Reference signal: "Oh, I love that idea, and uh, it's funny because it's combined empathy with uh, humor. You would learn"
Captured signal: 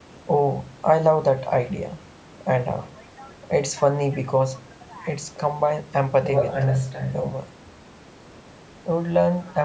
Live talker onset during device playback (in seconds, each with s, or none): 6.2 s